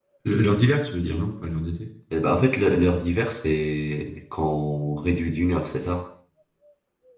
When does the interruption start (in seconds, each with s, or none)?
none